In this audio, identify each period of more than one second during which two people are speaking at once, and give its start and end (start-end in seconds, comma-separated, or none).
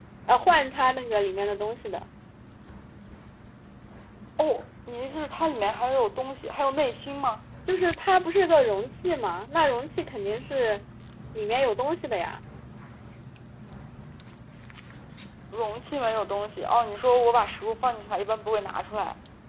none